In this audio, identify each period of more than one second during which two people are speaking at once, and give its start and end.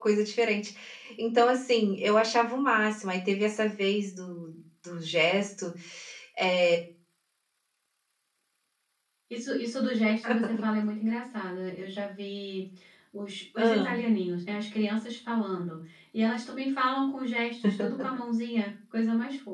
none

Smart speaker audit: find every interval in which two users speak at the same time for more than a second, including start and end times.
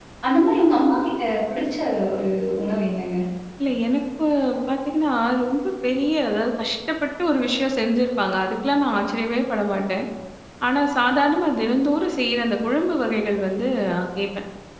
none

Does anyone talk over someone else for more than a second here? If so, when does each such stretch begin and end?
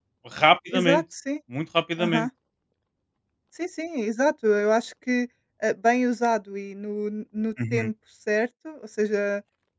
none

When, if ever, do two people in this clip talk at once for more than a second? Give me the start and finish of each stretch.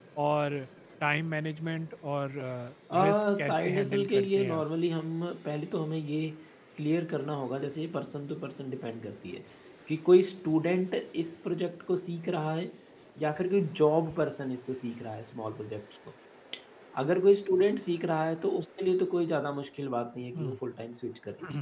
3.0-4.6

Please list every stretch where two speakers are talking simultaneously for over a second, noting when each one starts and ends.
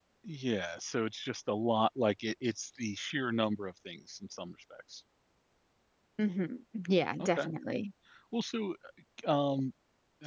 none

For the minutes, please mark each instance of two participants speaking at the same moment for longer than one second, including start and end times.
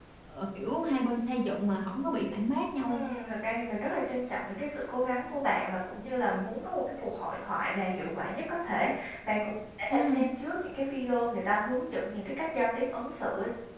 none

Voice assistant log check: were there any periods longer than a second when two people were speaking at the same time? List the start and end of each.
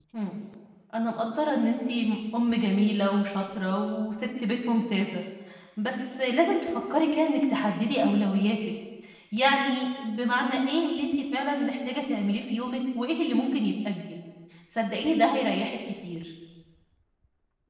none

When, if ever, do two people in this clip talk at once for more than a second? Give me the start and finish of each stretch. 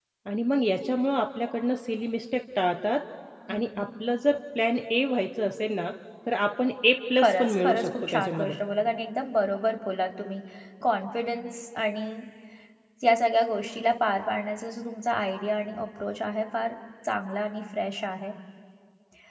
7.2-8.5

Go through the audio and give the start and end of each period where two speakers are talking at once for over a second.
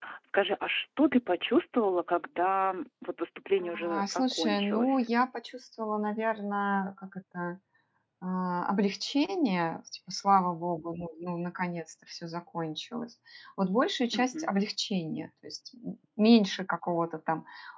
3.6-5.1

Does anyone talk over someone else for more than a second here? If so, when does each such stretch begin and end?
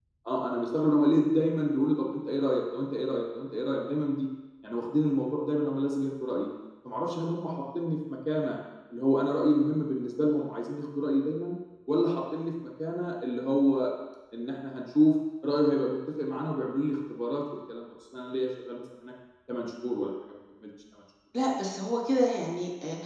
none

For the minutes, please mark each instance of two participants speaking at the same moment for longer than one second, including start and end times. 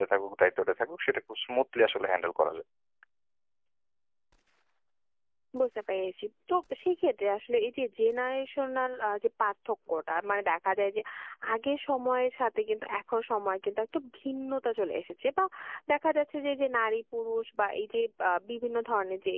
none

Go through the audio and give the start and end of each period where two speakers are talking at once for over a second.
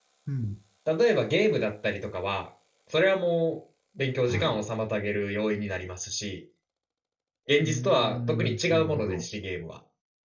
7.6-9.2

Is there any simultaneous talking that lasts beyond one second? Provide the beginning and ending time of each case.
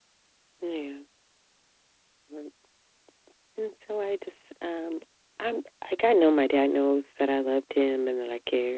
none

